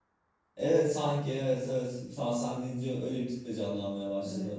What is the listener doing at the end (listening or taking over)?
taking over